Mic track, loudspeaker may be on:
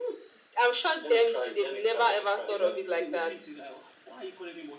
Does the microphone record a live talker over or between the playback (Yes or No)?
Yes